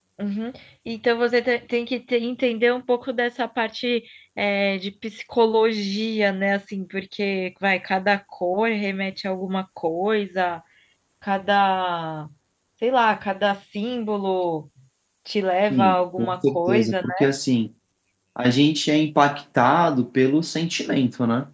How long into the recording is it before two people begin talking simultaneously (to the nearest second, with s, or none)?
16 s